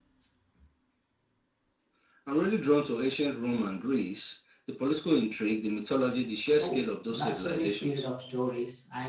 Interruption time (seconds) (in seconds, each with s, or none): 6.6 s